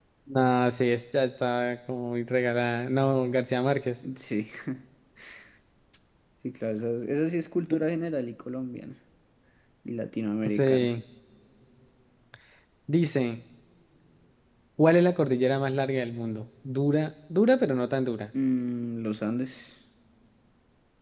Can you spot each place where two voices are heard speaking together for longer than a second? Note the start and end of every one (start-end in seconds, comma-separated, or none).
none